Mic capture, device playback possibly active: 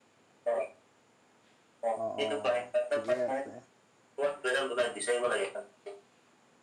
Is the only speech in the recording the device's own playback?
No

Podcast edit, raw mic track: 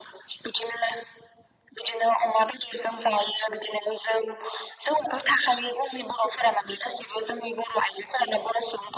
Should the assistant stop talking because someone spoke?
No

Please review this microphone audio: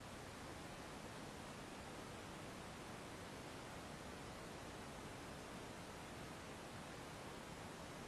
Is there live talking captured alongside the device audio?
No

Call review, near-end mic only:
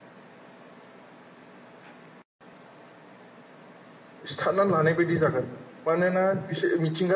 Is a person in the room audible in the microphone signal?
Yes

